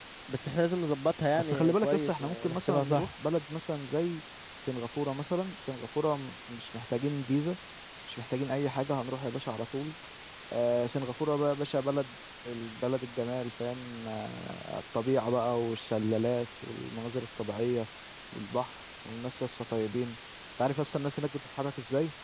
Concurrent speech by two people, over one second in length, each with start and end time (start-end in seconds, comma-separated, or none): 1.4-3.1